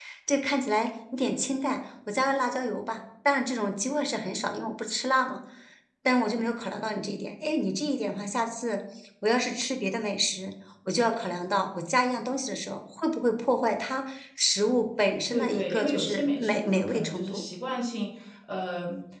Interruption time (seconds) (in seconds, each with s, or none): 15.3 s